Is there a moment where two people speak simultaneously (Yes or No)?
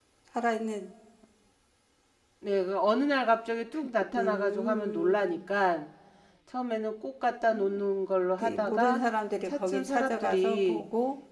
Yes